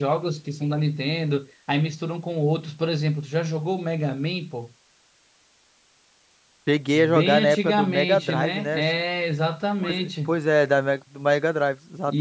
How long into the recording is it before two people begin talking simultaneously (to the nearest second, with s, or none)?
7 s